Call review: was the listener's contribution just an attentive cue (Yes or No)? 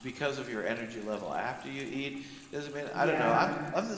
Yes